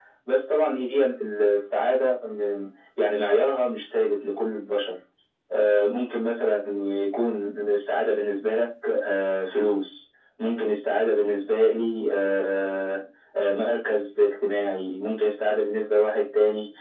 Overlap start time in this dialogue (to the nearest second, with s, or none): none